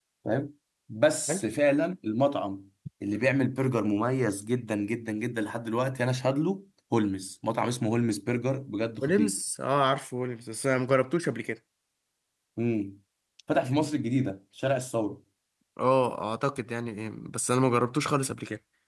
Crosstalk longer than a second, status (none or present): none